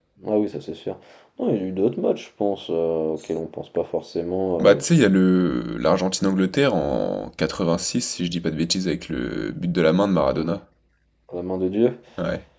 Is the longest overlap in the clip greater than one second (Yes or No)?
No